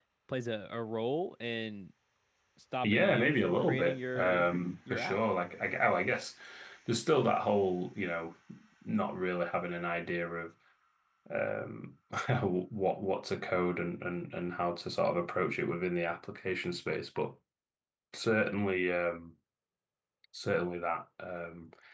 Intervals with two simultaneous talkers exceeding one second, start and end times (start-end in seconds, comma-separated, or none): 2.8-4.4